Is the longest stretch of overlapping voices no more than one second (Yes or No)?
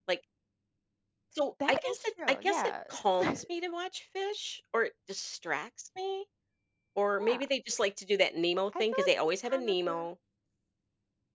No